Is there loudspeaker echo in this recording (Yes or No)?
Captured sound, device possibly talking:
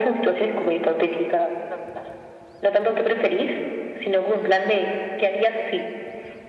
Yes